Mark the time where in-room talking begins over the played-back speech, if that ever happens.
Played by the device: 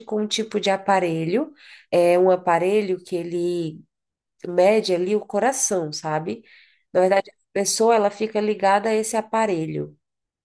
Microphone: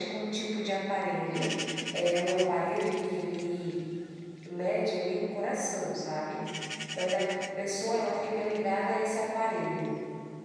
none

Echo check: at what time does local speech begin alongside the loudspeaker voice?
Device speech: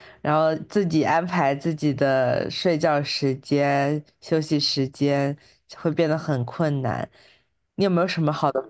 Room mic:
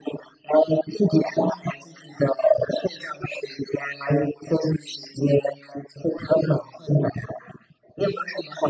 none

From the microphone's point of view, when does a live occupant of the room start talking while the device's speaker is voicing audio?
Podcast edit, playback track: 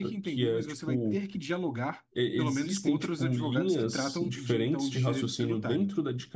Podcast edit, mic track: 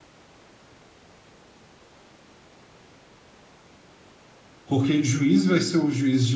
4.7 s

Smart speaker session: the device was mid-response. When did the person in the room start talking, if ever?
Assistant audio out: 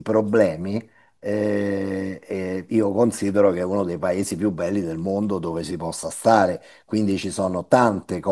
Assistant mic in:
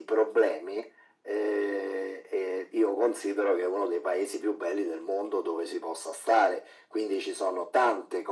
none

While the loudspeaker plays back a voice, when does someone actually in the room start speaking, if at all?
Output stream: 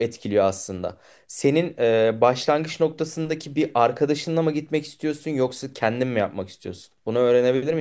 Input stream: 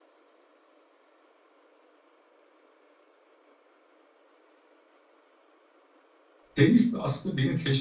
6.6 s

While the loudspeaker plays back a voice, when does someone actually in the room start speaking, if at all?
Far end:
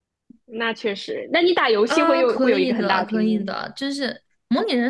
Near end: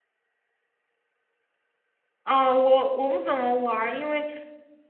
2.2 s

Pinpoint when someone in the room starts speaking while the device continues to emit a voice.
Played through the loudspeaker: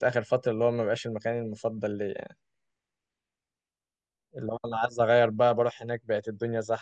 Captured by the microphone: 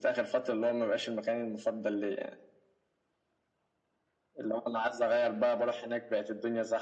none

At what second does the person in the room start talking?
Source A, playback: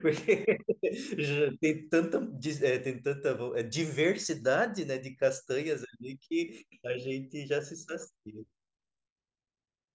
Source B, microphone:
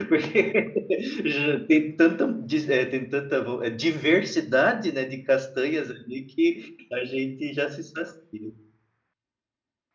none

